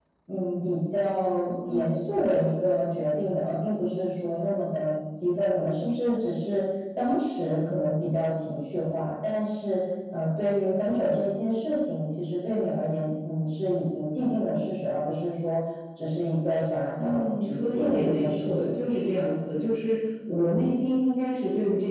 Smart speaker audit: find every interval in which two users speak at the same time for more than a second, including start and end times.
17.0-18.7

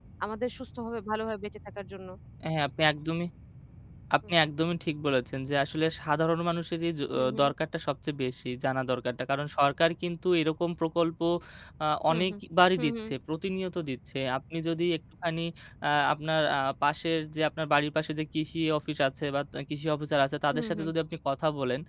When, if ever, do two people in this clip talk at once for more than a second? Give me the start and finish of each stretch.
none

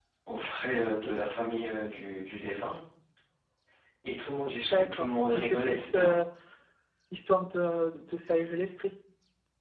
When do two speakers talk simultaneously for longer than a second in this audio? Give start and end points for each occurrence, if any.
4.6-6.2

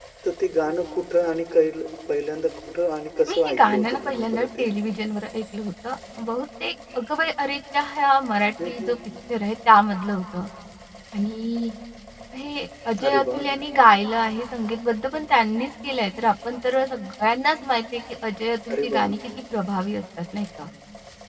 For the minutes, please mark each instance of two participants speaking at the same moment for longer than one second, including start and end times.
3.3-4.7

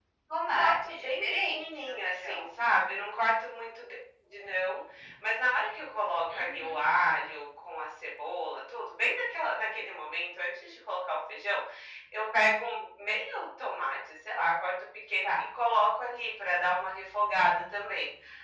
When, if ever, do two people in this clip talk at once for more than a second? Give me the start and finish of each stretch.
0.5-2.5

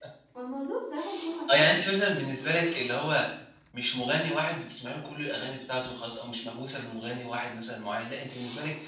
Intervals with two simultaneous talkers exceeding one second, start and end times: none

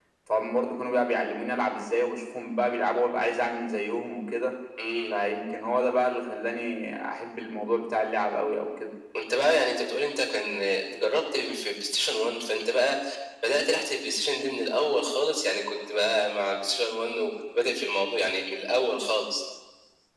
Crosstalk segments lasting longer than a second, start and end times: none

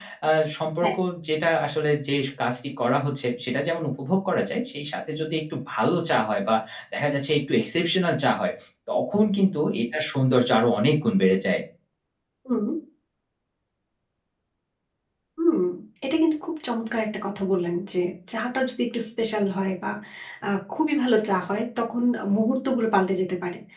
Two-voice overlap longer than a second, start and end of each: none

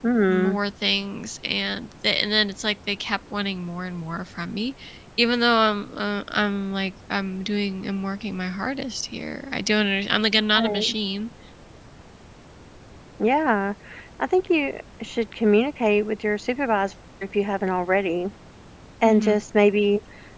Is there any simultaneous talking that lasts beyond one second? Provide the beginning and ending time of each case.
none

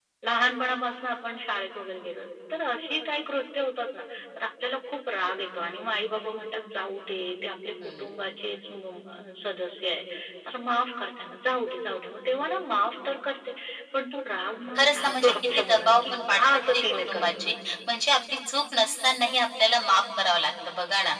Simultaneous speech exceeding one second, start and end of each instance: 14.8-17.4

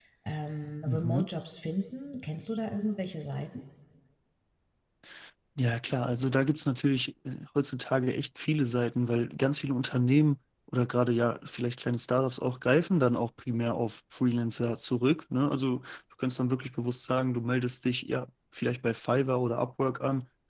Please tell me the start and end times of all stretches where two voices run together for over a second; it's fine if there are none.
none

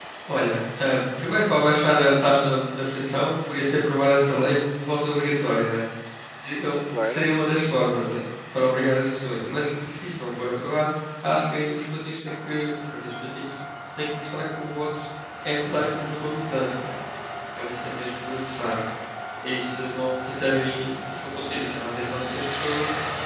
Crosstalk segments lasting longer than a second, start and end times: none

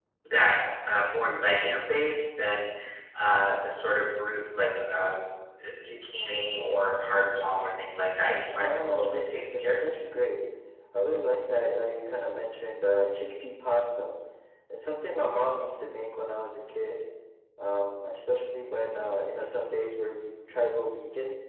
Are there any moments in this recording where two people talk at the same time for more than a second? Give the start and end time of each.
8.6-9.8

